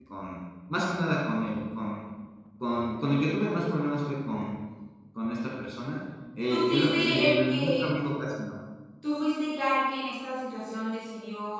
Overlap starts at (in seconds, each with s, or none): 6.5 s